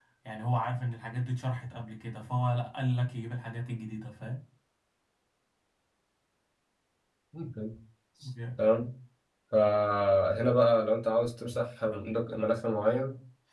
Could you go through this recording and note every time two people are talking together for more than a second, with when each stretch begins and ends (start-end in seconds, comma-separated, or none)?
none